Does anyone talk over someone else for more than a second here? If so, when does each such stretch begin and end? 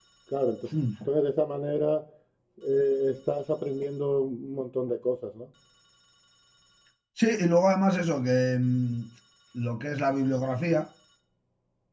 none

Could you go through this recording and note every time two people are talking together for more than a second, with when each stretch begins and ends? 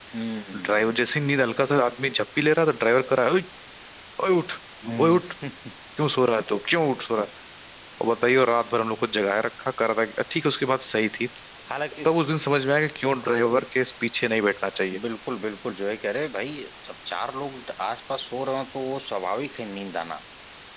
none

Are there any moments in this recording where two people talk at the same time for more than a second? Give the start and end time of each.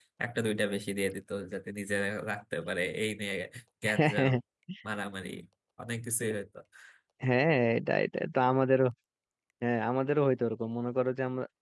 none

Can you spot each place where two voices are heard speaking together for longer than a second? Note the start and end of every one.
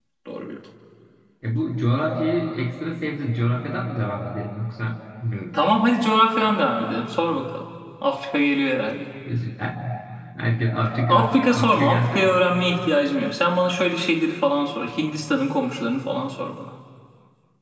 11.1-12.4

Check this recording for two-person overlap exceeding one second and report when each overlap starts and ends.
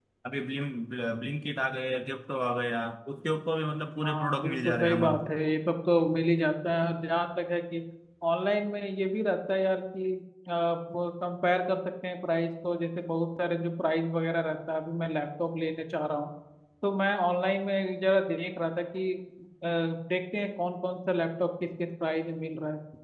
4.0-5.3

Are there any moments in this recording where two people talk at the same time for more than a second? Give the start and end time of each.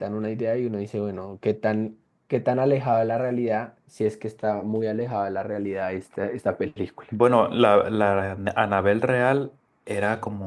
none

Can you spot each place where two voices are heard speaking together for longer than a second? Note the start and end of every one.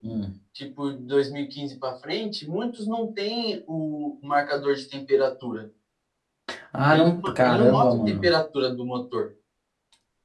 6.9-8.3

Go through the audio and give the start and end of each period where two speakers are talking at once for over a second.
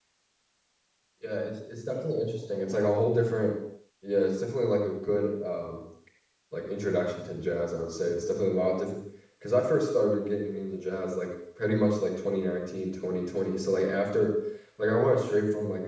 1.9-3.5

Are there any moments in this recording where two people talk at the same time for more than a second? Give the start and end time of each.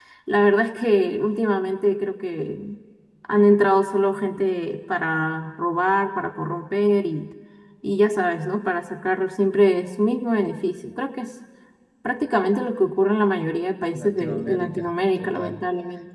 13.9-15.7

